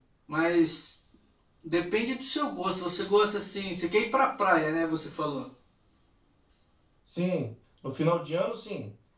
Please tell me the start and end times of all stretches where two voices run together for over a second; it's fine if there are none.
none

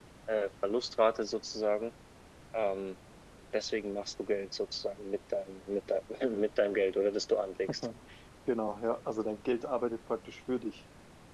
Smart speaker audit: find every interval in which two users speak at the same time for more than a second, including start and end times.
none

